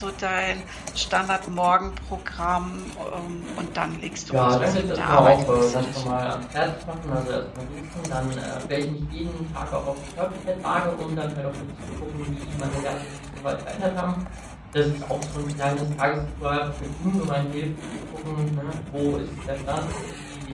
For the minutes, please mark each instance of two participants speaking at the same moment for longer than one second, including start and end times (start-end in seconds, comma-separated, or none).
4.3-6.2